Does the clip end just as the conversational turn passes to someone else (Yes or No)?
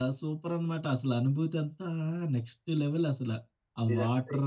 Yes